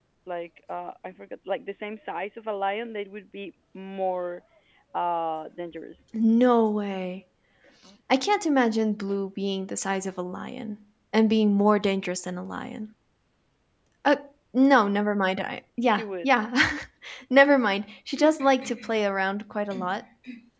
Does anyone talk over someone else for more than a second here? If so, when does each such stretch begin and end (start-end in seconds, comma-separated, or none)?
none